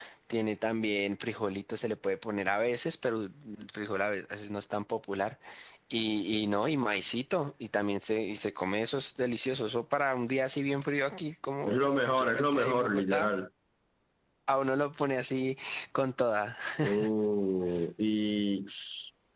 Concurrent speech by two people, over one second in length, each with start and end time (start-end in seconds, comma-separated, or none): 11.6-13.3